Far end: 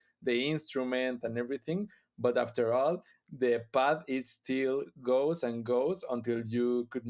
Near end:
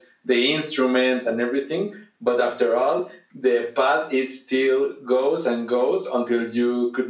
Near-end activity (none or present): none